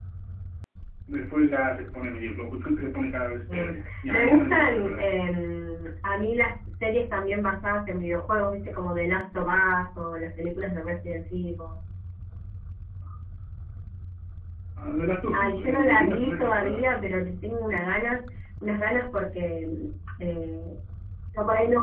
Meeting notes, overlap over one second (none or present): present